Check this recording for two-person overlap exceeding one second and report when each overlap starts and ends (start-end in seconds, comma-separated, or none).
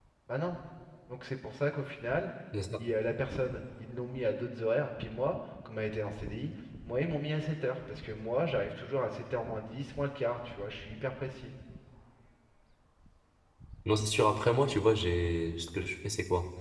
none